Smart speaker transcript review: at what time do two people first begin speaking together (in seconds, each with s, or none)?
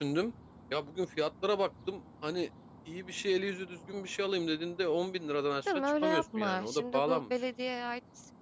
5.7 s